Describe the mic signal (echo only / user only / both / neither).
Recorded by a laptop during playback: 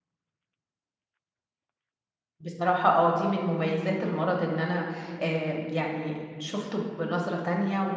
user only